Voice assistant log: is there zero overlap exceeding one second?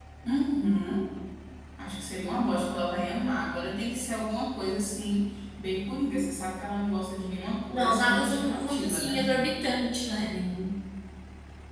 No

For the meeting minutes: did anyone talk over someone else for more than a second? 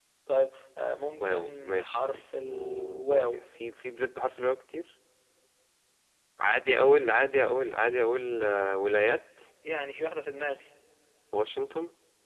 Yes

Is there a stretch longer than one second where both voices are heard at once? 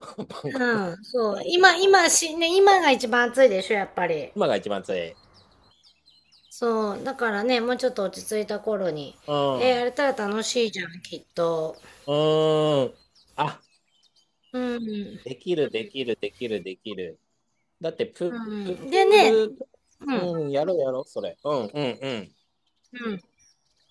No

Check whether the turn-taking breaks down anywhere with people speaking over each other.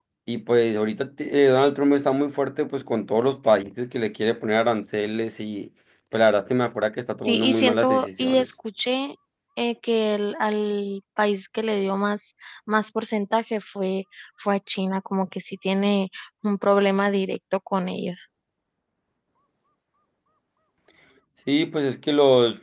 Yes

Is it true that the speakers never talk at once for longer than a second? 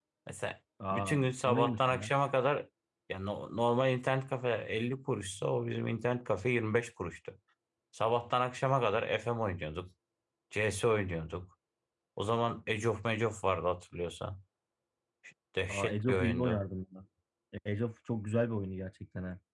No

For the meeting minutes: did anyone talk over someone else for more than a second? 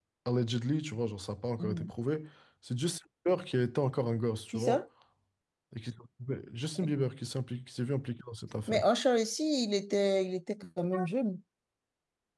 No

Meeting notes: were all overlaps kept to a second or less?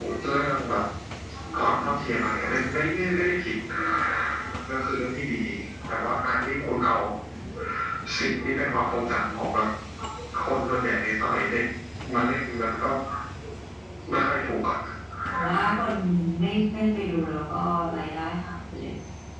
Yes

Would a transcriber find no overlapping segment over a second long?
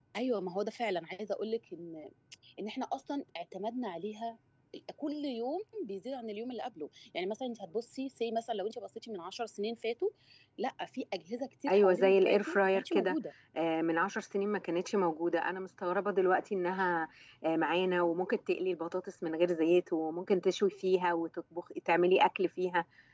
No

